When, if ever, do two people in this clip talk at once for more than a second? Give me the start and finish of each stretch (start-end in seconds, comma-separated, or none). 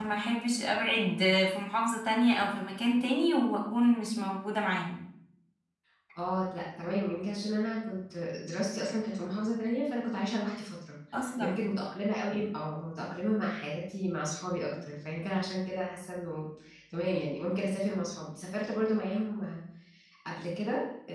none